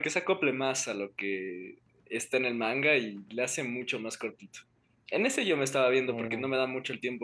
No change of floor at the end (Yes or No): Yes